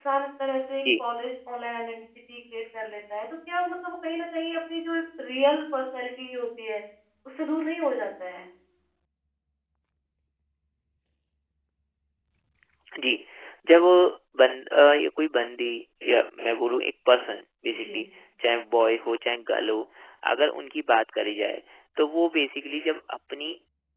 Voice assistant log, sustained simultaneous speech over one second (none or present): none